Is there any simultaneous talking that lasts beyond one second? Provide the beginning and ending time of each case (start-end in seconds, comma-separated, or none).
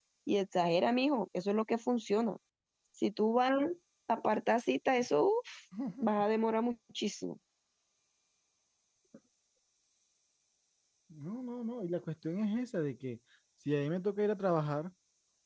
none